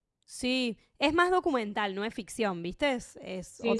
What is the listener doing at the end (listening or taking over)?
taking over